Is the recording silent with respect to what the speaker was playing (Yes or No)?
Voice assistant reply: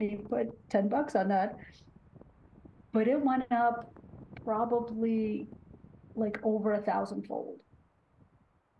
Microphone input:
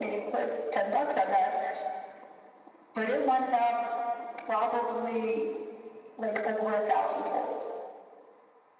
No